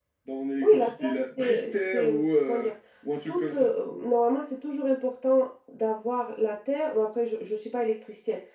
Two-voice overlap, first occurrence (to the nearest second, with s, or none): 1 s